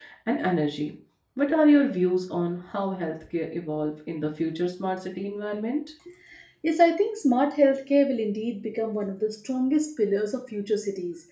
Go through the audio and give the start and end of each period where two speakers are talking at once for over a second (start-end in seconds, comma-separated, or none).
none